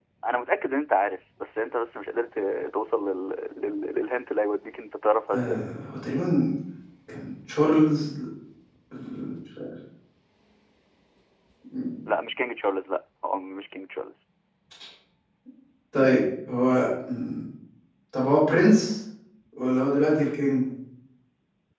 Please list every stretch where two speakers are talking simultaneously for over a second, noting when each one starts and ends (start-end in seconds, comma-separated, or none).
none